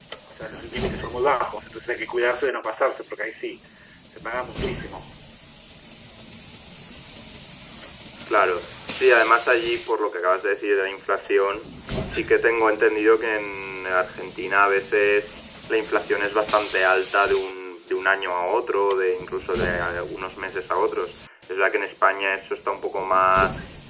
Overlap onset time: none

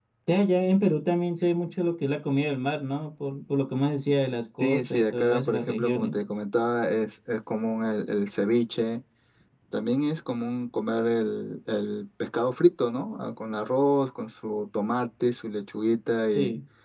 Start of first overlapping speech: 4.6 s

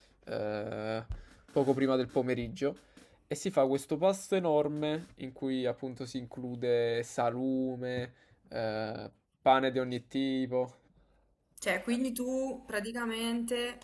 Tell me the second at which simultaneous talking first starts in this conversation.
none

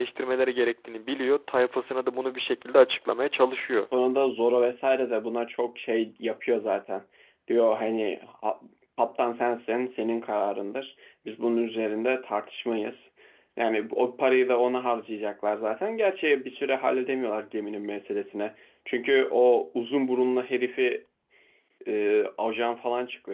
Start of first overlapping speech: none

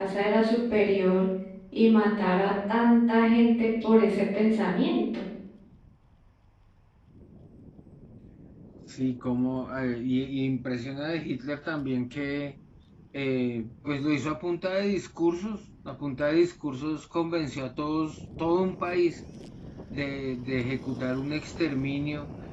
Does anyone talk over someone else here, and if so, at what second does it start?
none

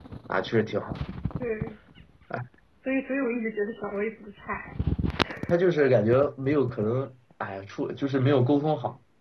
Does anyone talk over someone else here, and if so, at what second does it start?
none

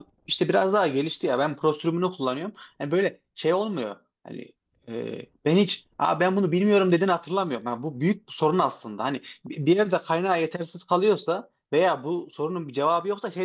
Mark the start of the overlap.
none

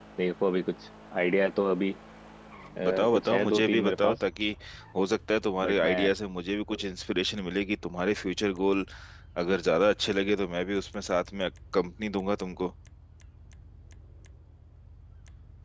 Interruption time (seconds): 2.8 s

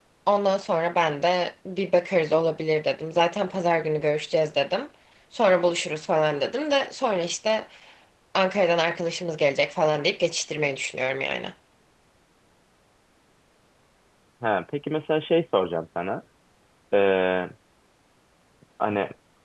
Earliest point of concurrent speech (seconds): none

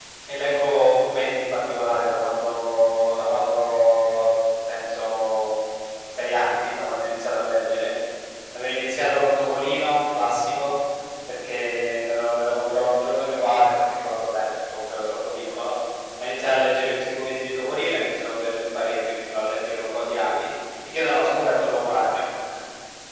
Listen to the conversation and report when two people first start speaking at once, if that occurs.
none

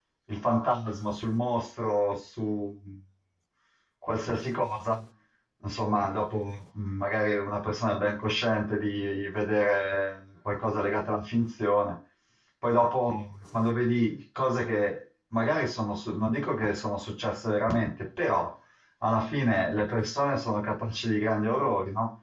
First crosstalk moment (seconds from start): none

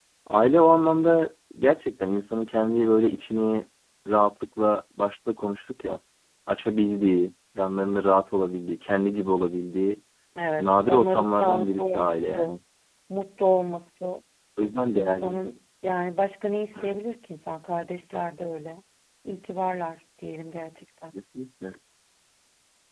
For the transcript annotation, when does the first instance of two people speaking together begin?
10.6 s

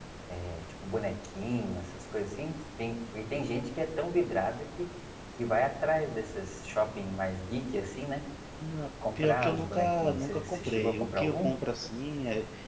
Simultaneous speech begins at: 9.2 s

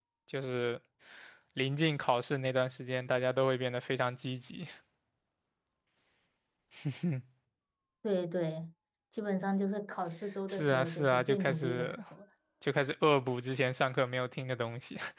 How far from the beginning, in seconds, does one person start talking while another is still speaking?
10.5 s

